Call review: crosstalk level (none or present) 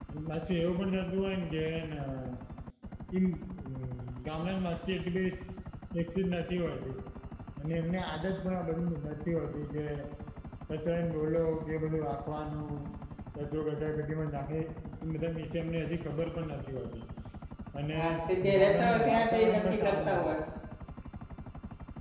present